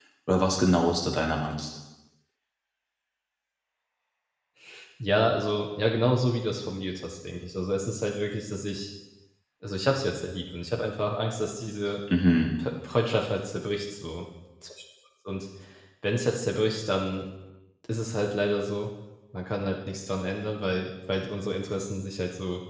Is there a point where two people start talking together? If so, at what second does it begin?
none

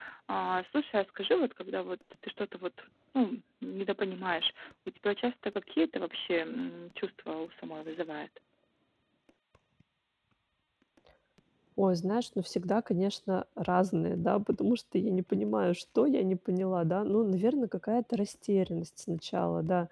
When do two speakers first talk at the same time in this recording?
none

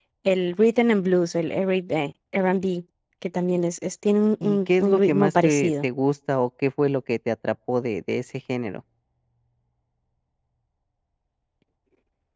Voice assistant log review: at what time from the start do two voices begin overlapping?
4.4 s

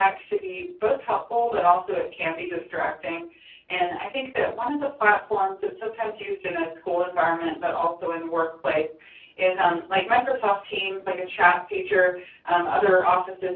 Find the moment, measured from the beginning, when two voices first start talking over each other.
none

